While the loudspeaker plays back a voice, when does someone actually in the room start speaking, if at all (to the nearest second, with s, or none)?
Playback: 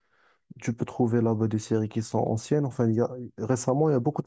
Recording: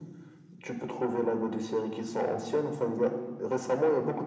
none